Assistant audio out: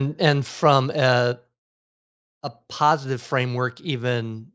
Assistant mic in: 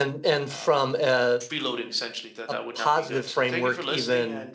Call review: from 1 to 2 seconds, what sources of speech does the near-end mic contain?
both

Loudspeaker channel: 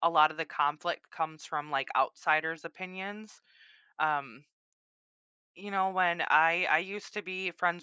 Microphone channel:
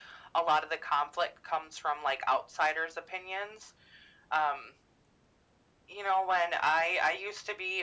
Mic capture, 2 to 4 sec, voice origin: echo only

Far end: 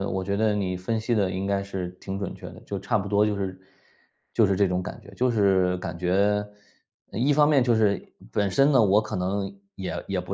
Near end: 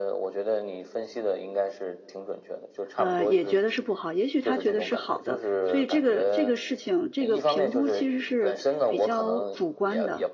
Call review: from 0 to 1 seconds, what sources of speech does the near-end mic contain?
echo only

